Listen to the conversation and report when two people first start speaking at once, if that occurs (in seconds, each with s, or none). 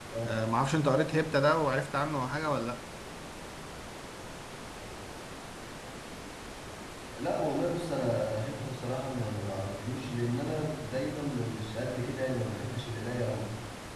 none